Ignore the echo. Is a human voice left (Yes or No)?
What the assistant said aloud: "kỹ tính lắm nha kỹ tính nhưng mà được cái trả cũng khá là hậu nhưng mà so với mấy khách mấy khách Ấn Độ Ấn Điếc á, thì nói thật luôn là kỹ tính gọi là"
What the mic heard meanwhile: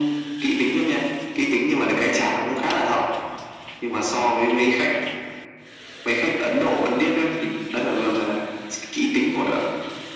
No